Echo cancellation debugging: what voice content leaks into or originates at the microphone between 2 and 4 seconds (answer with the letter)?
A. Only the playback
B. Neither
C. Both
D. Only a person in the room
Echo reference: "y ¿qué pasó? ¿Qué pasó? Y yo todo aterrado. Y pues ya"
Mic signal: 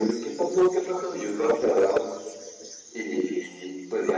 A